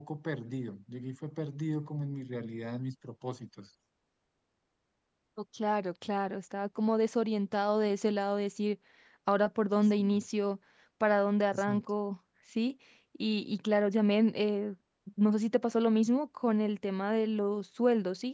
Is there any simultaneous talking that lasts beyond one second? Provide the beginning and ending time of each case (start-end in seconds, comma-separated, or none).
none